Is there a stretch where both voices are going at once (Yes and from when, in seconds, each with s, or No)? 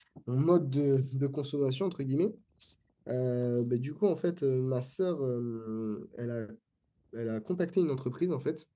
No